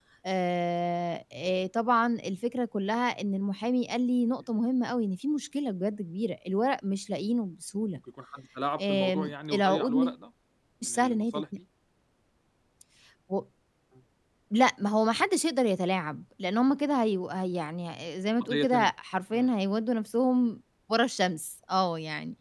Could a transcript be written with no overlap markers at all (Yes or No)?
No